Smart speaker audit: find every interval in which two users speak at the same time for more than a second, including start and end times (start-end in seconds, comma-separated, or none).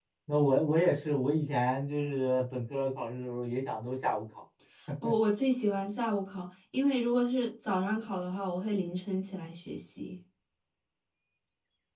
none